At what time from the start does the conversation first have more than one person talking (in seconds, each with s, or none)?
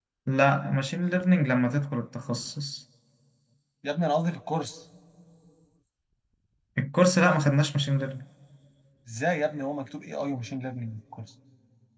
none